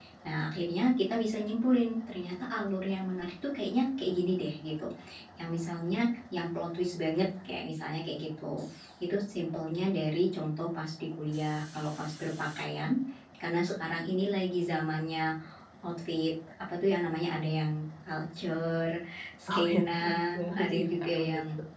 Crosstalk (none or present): present